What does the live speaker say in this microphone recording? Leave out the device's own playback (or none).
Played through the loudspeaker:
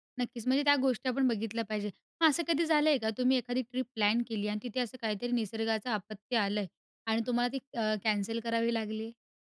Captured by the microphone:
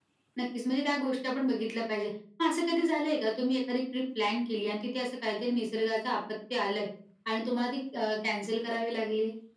none